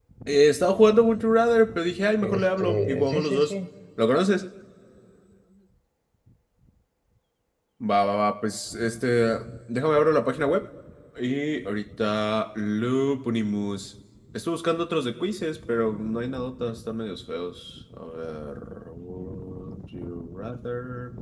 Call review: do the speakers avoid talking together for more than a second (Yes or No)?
No